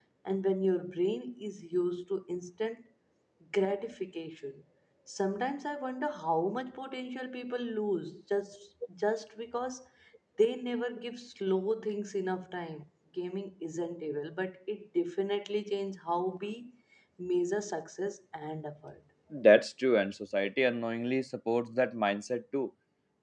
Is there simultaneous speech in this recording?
No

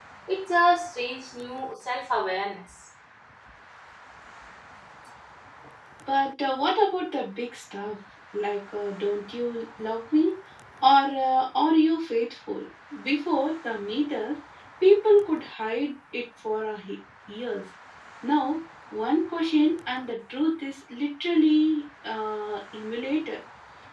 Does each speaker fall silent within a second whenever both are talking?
Yes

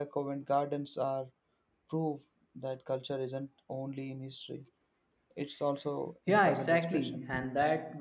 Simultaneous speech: Yes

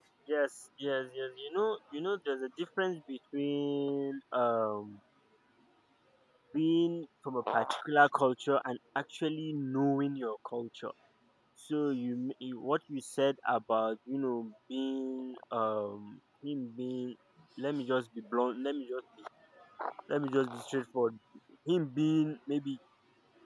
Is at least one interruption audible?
No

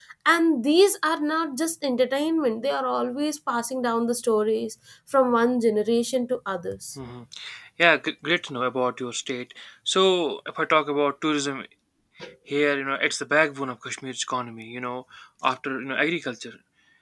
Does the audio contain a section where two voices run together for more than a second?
No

